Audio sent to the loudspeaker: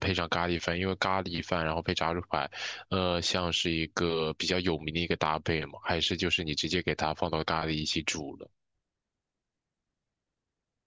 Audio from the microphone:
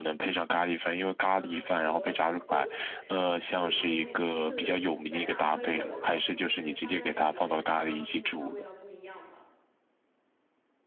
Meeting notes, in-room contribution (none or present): present